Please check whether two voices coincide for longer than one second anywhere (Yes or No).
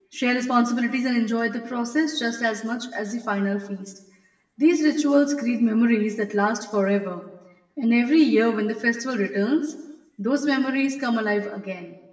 No